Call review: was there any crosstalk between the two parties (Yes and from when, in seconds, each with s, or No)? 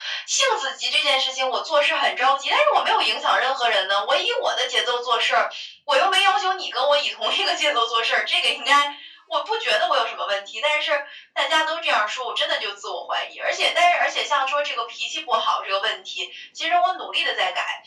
No